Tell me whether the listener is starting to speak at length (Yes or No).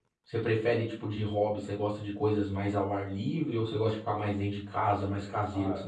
Yes